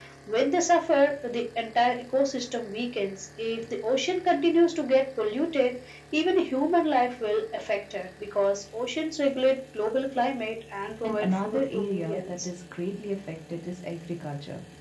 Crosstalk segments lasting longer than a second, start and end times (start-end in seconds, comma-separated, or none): 11.0-12.5